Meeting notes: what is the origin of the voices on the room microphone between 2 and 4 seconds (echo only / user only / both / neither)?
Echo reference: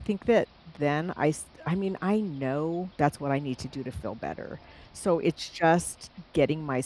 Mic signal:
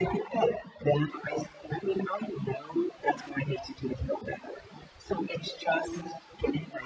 echo only